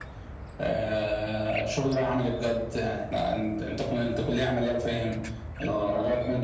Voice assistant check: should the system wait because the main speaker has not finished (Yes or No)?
Yes